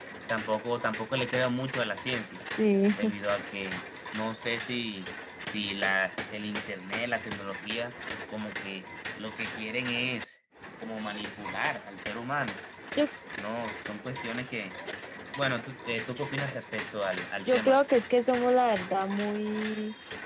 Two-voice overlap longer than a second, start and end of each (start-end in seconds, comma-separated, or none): none